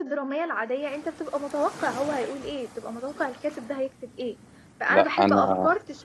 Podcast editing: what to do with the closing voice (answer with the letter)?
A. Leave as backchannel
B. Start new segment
A